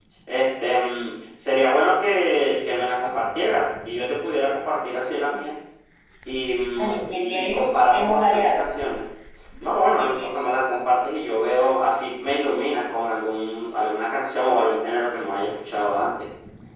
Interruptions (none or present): present